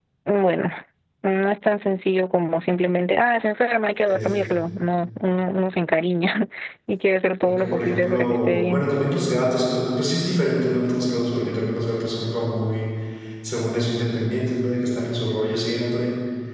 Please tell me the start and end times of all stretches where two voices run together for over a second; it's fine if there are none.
7.4-8.8

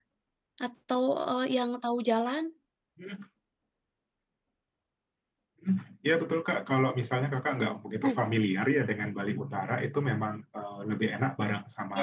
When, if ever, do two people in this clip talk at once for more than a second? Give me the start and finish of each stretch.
none

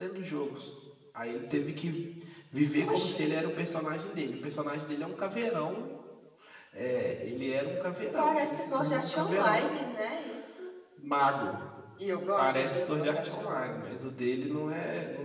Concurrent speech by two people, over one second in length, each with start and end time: 8.2-9.7, 12.4-13.9

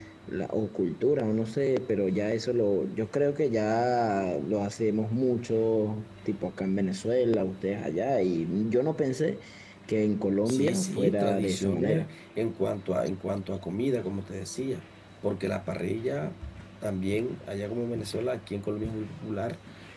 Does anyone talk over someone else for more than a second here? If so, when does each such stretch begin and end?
10.5-12.1

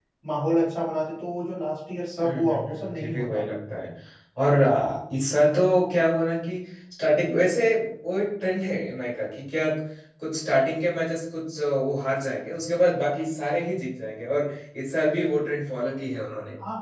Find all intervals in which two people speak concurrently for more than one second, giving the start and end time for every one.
2.2-3.4

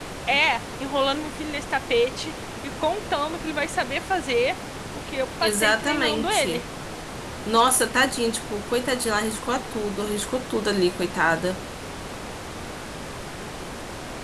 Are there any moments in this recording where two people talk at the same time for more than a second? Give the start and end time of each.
5.4-6.6

